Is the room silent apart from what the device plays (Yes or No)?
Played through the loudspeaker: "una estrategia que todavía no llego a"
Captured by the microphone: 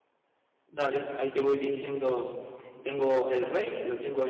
No